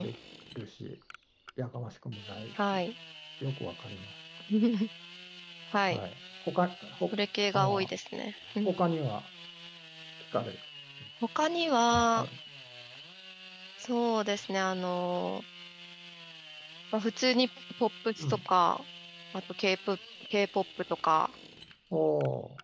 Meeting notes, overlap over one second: none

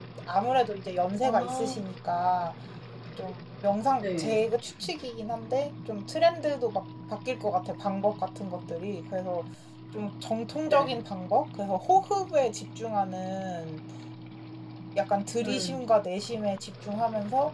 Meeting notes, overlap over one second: none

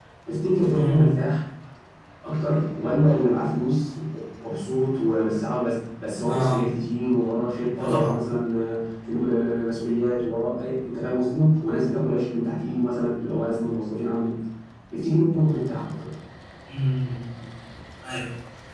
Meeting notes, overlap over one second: none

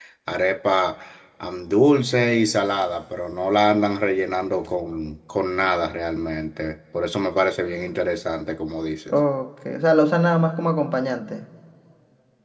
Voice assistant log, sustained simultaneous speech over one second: none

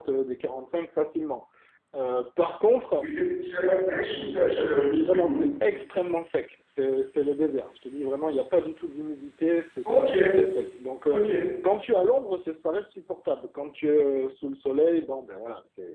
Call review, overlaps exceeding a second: none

